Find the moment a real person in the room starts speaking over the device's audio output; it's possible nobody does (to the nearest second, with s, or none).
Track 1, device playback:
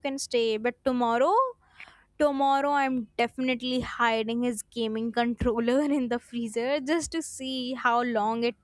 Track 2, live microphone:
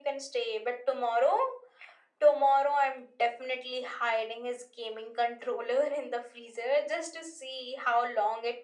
none